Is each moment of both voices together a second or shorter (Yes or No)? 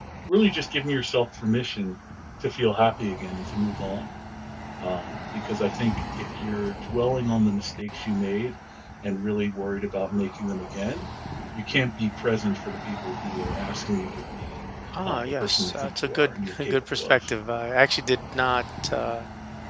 No